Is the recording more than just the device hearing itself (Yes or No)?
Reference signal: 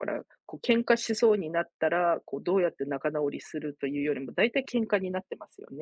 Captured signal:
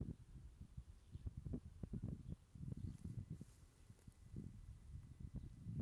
No